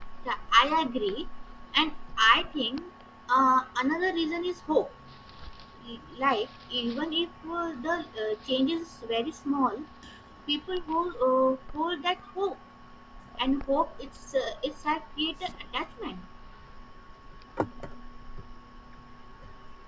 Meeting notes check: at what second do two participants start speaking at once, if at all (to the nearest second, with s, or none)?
none